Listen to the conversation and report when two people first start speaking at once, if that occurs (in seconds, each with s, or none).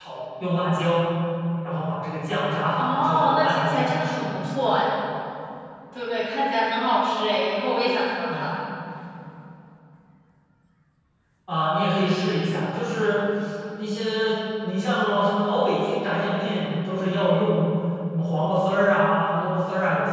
2.8 s